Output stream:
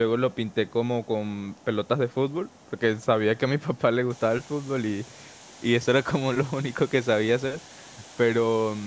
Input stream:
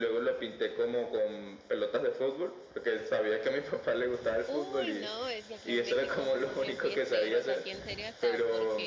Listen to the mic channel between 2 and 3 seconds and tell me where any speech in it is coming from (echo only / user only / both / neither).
echo only